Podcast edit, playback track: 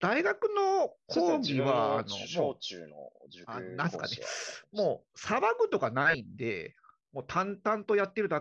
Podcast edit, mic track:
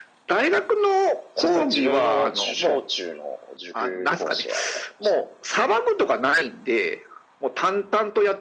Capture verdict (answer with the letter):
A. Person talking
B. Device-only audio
B